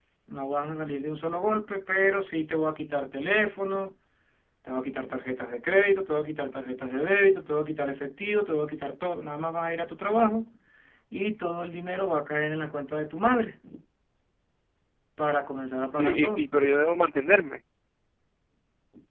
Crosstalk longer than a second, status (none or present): none